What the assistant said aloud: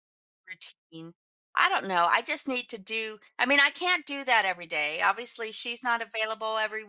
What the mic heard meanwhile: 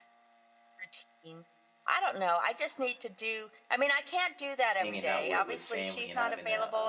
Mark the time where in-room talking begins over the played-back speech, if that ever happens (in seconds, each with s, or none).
4.8 s